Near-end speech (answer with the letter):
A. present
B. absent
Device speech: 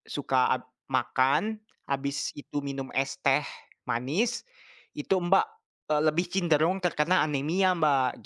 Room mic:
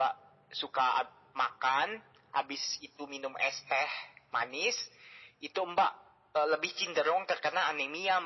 B